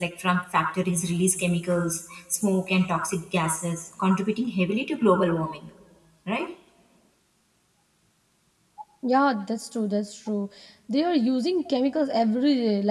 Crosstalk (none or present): none